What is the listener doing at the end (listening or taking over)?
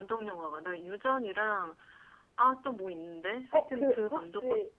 taking over